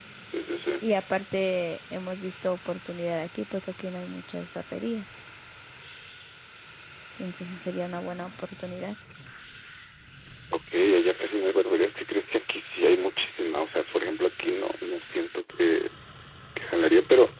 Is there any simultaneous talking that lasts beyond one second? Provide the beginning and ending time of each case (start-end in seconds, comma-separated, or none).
none